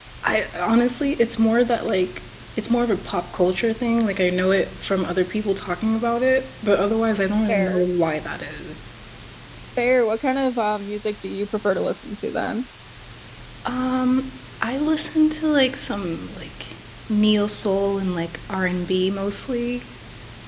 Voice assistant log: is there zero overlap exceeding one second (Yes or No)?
Yes